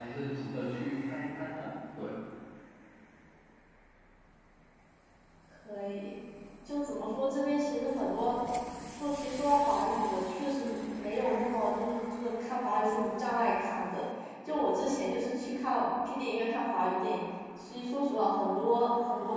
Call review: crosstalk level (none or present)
none